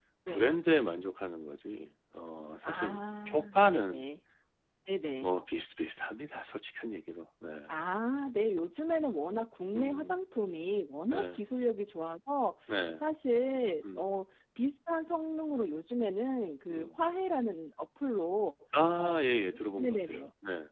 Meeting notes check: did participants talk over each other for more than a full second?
Yes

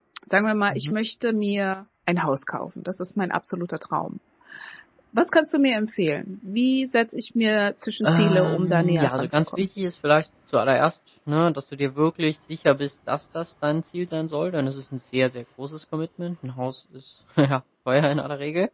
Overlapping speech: Yes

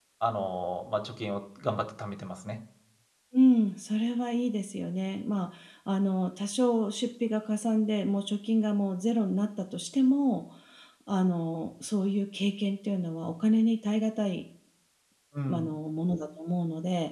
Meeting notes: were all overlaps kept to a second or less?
Yes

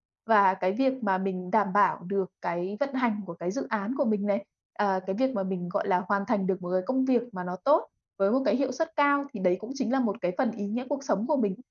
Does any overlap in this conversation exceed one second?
No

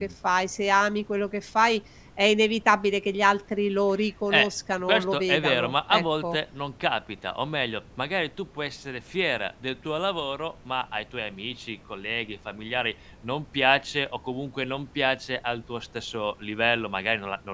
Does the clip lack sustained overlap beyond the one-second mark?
No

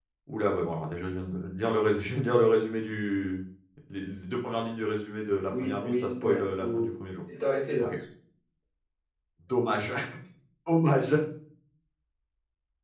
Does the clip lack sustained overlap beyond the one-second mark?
No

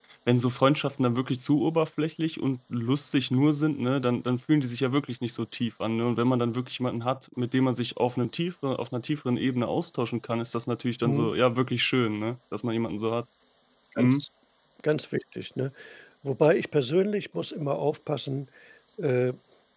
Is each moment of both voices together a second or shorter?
Yes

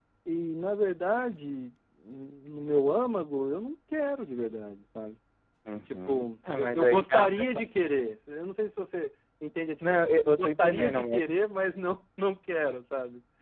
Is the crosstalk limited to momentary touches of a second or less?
No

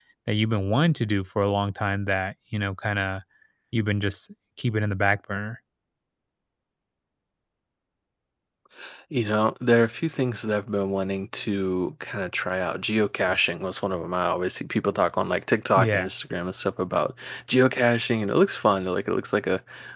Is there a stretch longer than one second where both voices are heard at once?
No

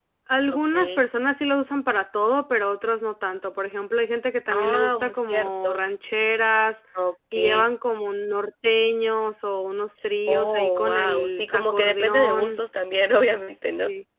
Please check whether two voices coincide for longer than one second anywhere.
Yes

